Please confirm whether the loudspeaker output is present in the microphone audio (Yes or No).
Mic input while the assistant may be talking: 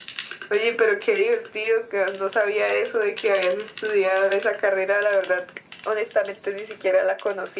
Yes